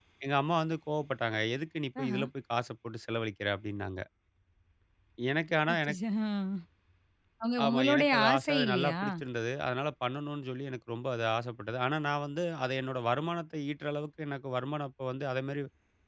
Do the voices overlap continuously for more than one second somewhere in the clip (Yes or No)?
Yes